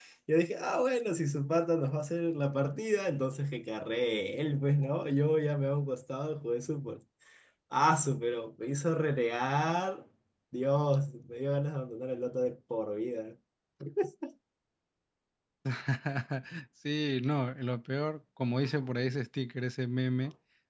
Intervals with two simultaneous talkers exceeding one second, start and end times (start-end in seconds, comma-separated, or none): none